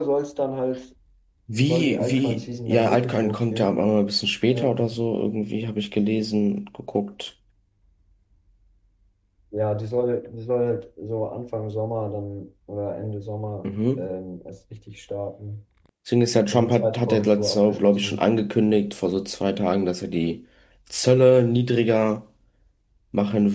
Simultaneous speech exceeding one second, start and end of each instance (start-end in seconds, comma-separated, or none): 1.6-3.8, 16.5-18.2